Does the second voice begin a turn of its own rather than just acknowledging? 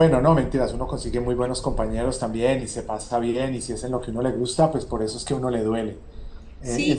Yes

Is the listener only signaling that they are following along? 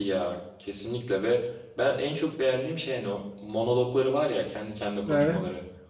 Yes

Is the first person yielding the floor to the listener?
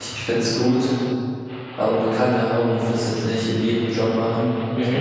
No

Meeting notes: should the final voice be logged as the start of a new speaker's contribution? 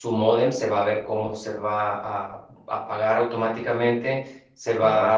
No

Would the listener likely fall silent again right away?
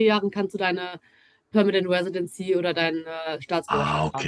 No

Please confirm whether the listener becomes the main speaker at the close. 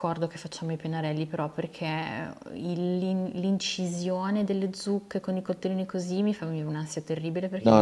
Yes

